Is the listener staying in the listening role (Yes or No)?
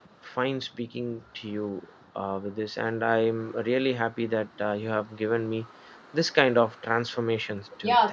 No